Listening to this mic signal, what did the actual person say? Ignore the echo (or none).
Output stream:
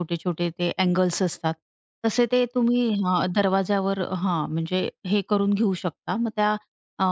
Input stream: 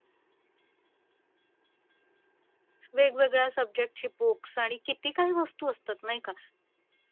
वेगवेगळ्या सब्जेक्टची बुक्स आणि किती काही वस्तू असतात, नाही का?